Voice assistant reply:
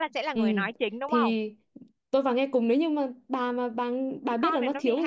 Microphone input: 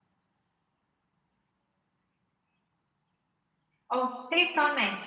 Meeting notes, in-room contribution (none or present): present